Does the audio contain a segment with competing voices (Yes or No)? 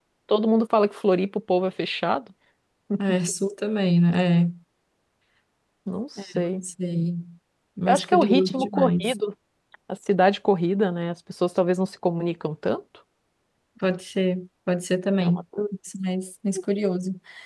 Yes